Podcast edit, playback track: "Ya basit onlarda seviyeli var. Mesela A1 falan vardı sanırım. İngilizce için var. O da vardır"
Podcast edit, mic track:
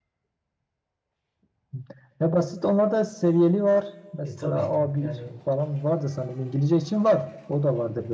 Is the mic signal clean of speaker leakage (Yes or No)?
No